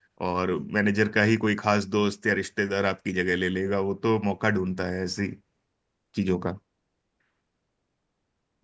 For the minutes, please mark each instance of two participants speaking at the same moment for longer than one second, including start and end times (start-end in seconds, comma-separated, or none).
none